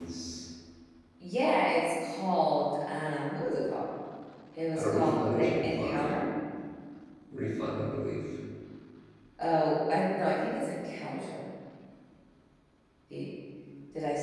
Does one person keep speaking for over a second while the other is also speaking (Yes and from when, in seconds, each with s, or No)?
Yes, from 4.8 s